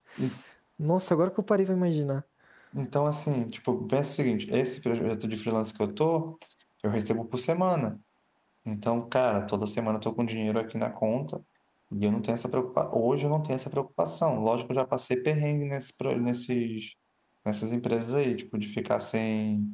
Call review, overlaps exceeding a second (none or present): none